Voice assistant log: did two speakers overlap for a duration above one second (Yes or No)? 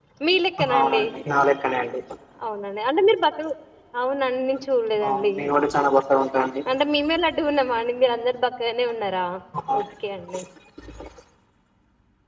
No